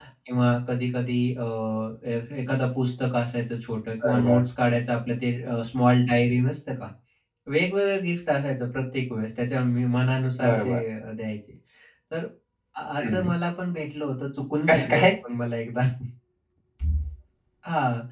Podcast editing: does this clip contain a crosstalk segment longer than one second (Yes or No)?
No